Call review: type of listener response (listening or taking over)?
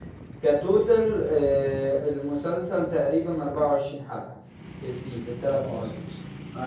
taking over